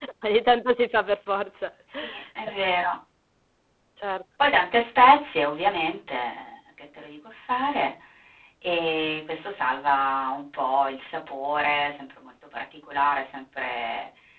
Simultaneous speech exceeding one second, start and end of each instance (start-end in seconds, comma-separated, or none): none